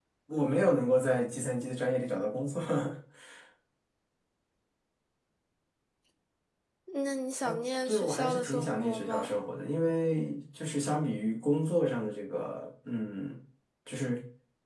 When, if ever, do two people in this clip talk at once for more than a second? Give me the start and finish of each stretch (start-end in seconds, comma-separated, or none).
7.9-9.3